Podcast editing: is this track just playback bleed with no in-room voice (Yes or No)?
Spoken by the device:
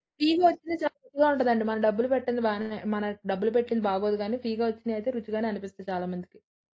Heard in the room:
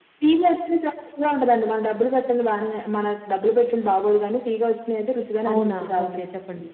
No